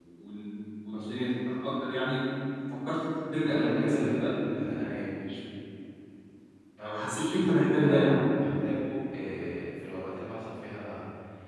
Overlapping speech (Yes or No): Yes